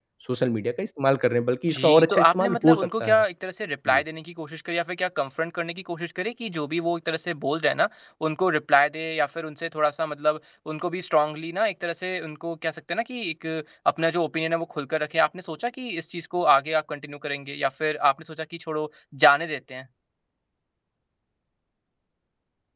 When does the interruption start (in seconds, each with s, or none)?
1.7 s